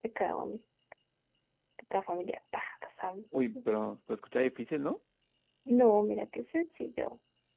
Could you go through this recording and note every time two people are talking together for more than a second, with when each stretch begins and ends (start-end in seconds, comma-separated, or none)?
none